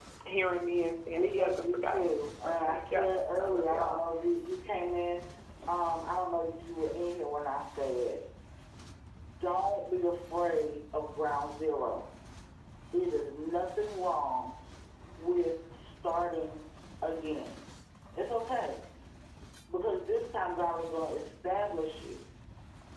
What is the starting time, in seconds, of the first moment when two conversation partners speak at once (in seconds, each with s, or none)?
1.1 s